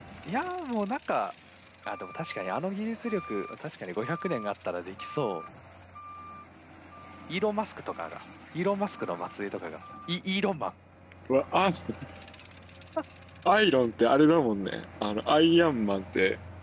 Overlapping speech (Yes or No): No